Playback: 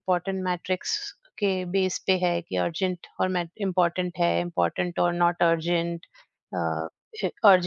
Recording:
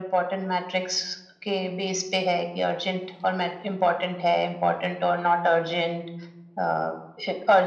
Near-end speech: none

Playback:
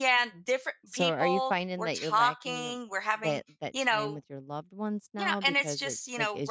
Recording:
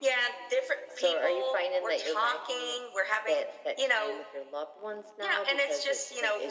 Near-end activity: none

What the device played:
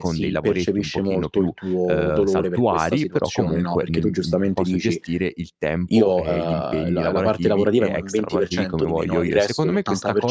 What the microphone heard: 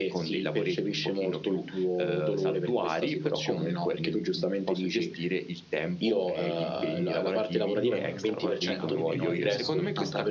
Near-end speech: present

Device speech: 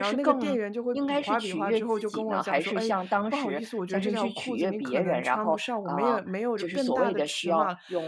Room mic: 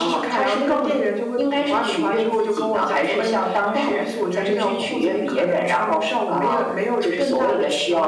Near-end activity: none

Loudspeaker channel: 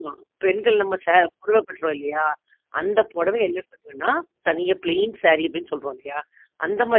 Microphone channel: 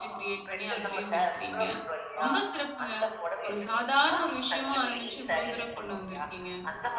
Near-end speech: present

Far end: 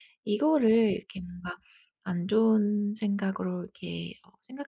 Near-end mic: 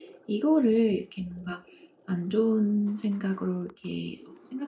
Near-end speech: none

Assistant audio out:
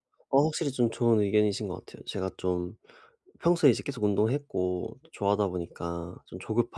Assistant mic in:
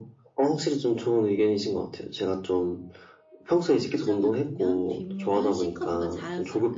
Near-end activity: present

